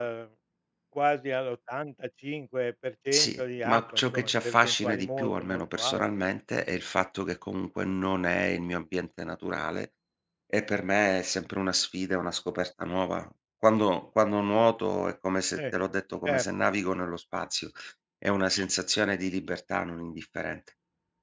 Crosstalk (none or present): present